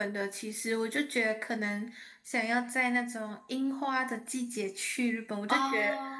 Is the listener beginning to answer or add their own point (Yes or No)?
No